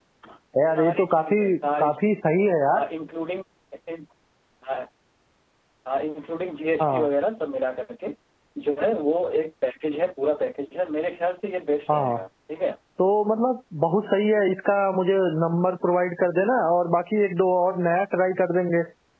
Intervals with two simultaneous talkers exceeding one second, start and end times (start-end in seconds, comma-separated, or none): 0.7-2.3